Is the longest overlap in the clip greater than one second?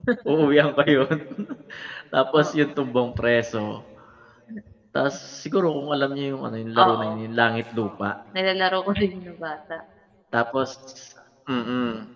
No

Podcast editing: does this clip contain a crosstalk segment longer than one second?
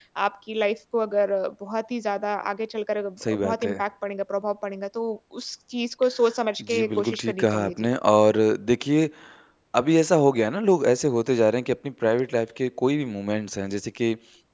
Yes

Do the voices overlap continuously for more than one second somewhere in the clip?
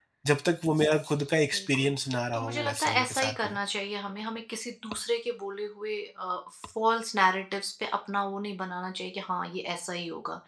Yes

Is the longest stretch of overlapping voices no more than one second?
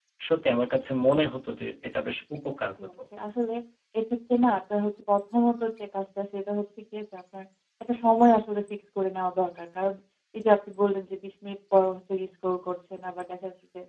Yes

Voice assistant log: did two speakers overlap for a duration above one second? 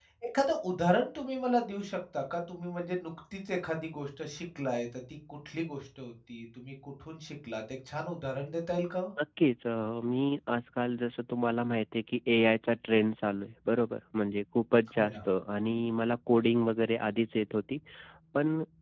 No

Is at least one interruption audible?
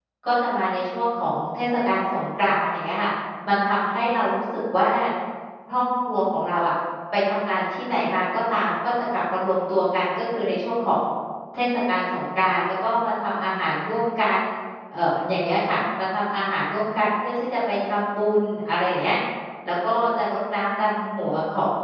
No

